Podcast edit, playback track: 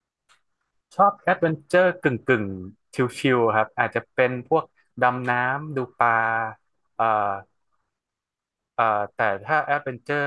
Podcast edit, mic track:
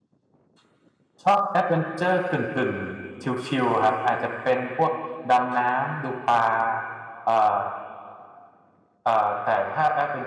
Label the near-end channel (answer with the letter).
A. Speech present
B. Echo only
B